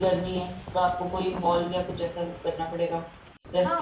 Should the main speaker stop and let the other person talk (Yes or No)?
Yes